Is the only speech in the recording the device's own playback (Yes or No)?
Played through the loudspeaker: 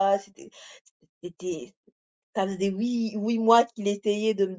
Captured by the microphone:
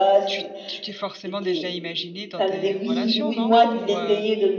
No